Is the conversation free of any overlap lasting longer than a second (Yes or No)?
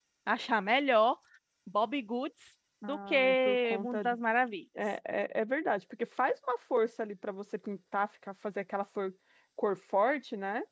No